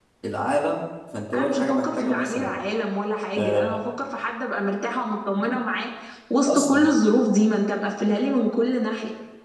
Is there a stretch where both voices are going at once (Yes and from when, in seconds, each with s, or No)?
Yes, from 1.3 s